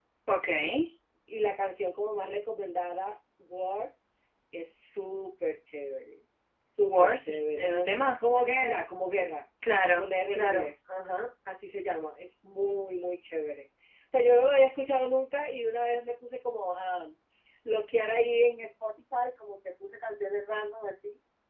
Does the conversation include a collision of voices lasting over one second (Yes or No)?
Yes